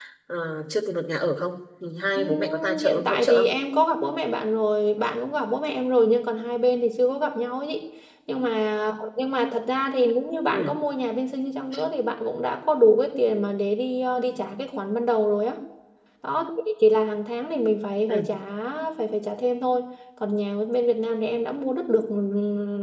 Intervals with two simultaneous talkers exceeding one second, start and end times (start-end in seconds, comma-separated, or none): 2.2-3.5